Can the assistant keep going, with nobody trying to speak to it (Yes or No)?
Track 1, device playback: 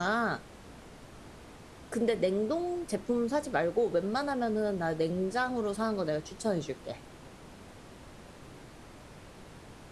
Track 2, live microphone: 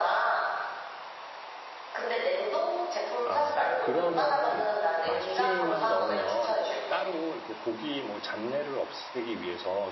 No